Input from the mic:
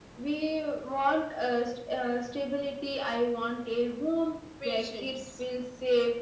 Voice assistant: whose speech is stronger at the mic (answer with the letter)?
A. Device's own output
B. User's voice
A